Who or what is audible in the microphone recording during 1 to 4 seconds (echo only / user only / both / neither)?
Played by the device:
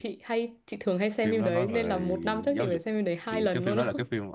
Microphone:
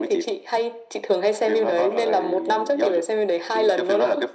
echo only